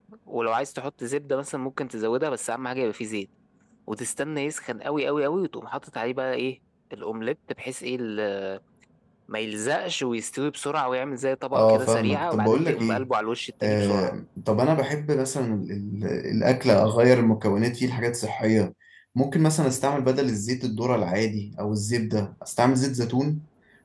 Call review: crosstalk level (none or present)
present